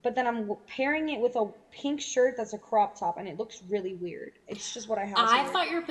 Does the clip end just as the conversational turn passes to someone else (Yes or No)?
Yes